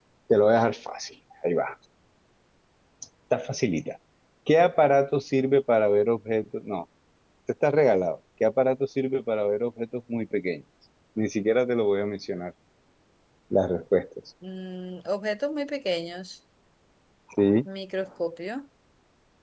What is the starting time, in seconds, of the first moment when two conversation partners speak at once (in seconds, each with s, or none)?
none